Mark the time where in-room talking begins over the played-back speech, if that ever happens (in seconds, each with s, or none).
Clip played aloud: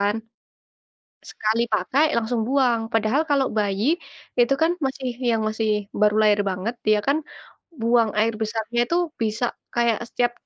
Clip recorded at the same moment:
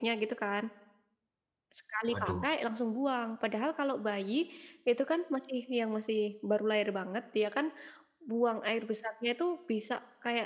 2.1 s